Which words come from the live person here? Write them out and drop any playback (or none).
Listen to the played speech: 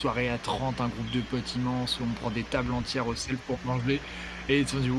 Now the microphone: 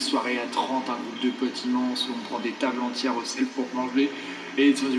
none